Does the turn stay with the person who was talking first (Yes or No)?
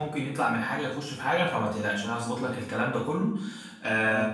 Yes